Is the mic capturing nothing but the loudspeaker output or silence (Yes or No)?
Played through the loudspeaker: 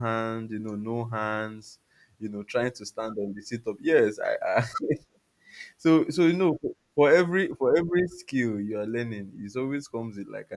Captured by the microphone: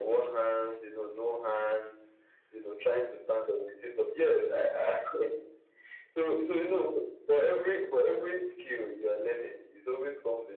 Yes